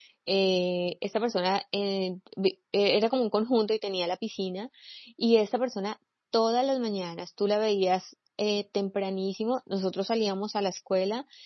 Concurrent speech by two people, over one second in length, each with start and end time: none

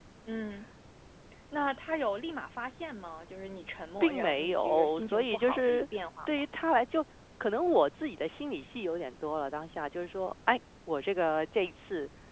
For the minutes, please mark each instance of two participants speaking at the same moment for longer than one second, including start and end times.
4.0-5.9

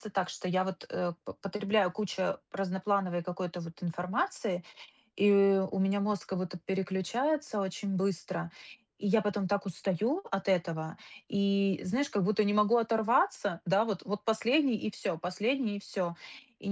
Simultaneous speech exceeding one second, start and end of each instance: none

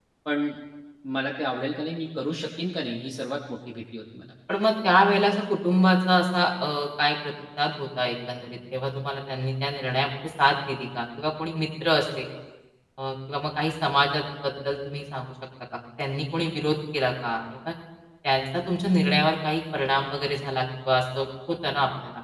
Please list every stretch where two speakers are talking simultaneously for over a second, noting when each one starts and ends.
none

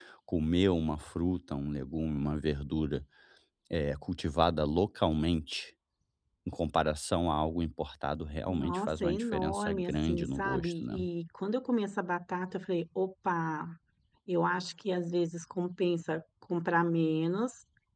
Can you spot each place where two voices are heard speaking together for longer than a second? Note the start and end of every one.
8.5-11.0

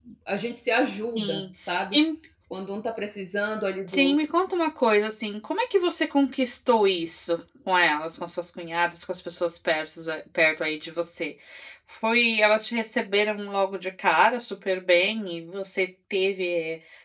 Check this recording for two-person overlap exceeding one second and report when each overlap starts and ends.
none

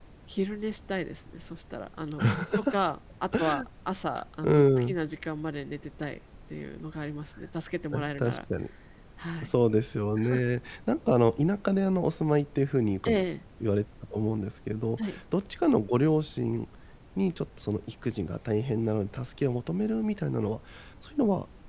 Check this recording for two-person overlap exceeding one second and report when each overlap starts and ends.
none

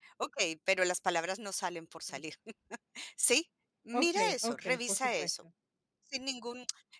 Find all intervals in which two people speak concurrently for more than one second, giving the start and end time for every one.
3.9-5.3

